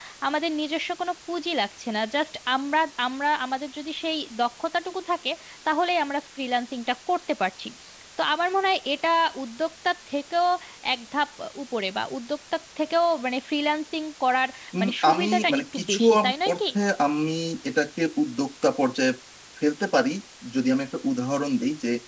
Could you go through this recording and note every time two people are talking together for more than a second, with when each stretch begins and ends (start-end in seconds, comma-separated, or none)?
14.8-16.6